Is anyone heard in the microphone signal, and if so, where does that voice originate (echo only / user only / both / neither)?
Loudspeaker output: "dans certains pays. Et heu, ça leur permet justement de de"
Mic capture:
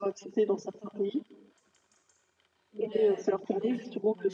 both